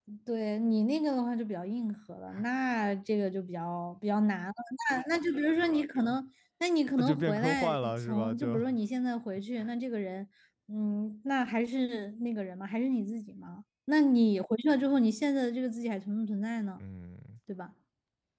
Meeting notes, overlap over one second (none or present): present